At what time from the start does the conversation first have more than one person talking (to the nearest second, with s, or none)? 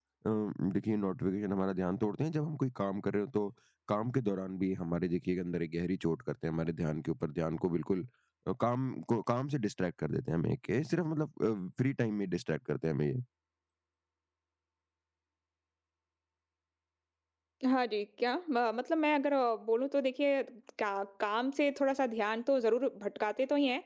none